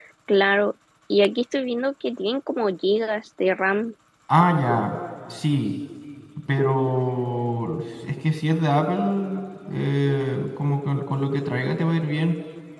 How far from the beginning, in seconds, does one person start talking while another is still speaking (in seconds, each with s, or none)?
none